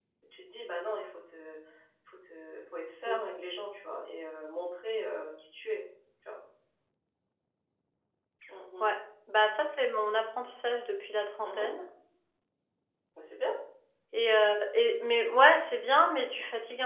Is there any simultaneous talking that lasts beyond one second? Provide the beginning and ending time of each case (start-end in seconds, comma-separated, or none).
none